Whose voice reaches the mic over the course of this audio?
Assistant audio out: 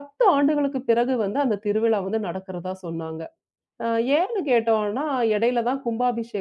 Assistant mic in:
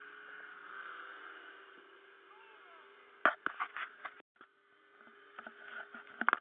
neither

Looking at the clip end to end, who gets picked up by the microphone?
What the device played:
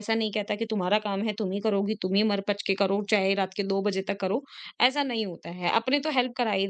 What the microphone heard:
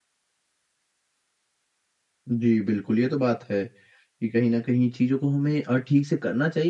user only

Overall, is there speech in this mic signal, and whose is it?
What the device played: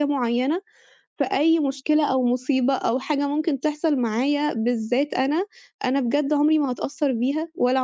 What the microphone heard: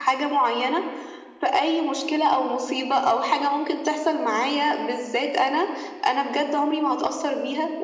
echo only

